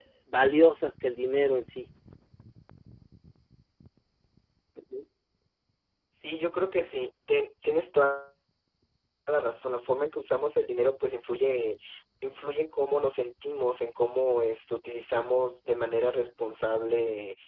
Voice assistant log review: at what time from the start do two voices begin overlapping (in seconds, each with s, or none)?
none